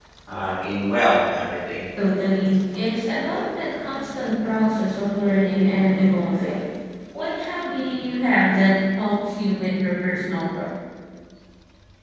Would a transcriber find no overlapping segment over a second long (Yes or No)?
Yes